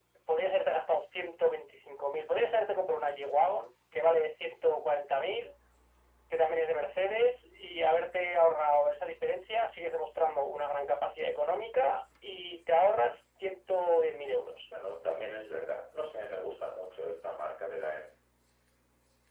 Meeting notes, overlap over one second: none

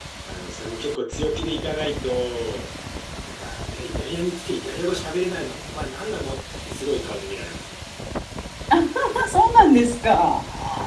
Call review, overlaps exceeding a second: none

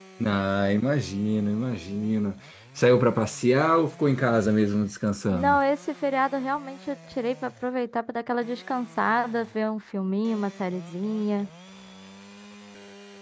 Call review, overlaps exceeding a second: none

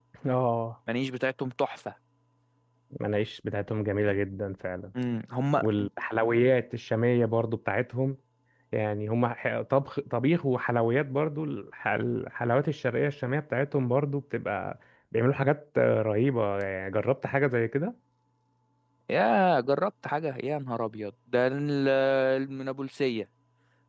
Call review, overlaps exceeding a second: none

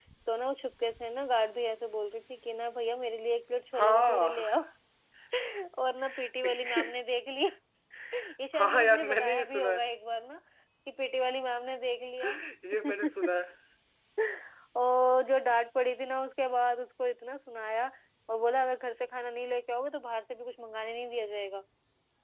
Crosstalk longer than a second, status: present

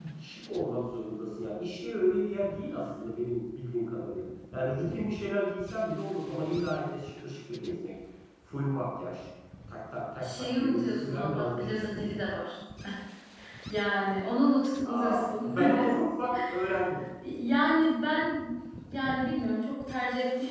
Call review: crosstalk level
present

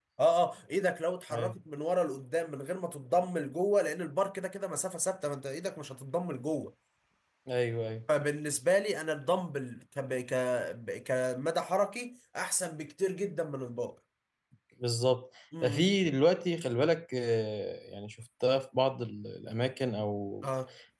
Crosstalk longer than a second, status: none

